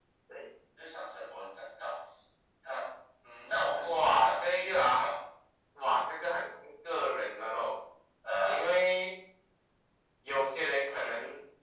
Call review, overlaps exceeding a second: present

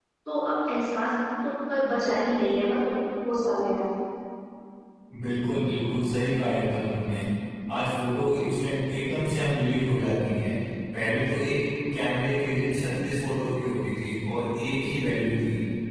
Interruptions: none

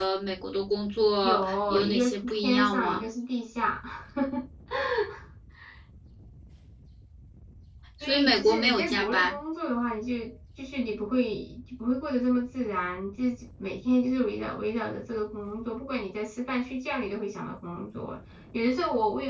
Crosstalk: present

